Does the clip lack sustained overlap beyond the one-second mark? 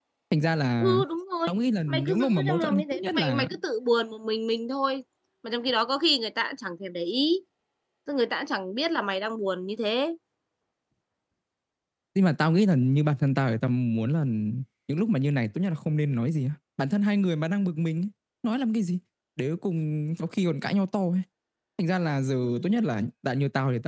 No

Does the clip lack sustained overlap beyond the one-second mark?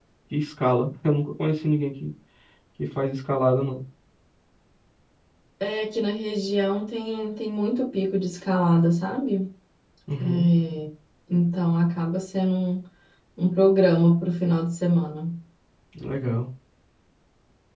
Yes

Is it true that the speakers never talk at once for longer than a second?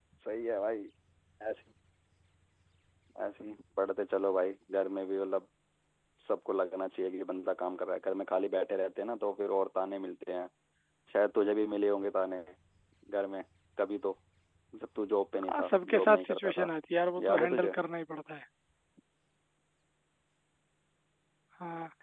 No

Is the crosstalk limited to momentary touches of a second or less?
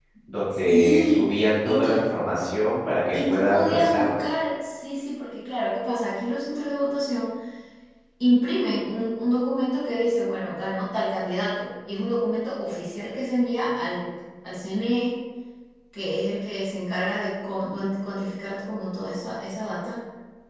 No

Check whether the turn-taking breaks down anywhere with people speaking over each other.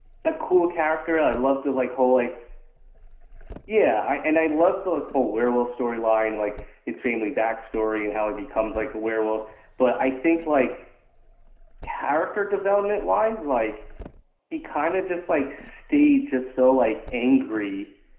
No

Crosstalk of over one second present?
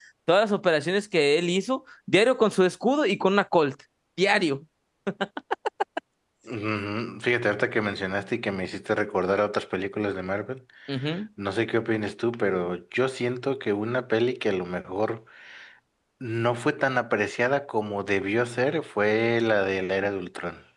No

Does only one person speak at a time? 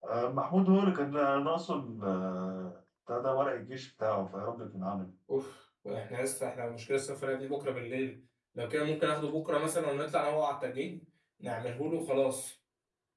Yes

